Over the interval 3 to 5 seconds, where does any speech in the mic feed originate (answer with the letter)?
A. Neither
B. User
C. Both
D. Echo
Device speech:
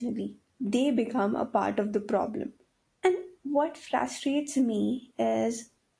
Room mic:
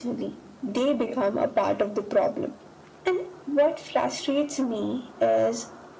D